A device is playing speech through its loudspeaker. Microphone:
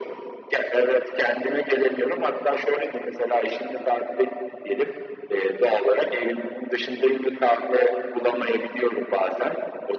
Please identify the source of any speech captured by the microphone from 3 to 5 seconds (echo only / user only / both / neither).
echo only